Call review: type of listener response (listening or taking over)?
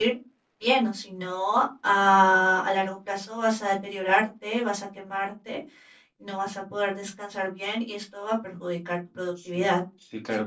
taking over